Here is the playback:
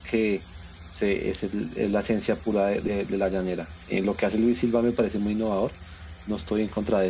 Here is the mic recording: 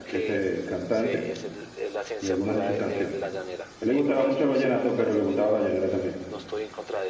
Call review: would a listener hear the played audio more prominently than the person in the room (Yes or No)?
No